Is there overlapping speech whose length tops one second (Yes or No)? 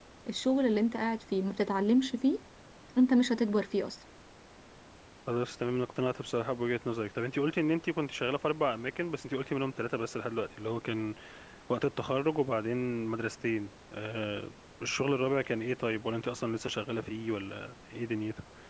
No